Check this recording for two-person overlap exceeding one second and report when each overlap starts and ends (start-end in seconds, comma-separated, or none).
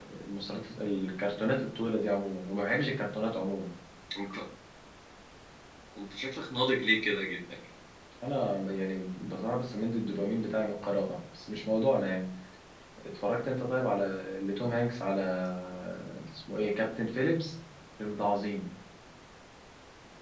none